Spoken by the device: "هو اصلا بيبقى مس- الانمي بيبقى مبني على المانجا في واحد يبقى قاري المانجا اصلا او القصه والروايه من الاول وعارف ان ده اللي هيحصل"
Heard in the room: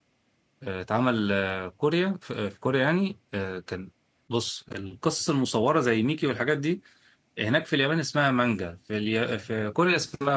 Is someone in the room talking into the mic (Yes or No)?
Yes